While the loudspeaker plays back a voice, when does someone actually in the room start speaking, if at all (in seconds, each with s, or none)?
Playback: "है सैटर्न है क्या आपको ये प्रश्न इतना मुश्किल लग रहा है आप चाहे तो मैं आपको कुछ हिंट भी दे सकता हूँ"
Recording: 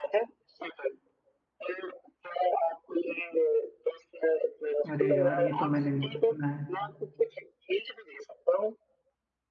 4.9 s